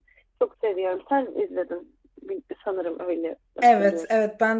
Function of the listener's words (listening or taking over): taking over